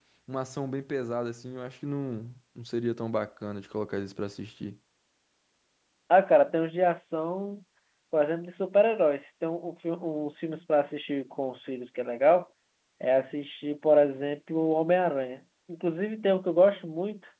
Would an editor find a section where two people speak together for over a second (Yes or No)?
No